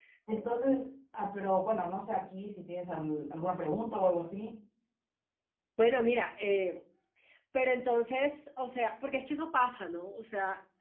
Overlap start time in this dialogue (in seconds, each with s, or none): none